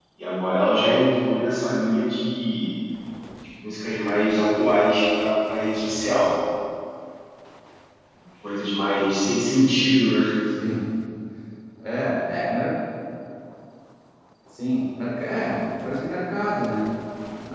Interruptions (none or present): none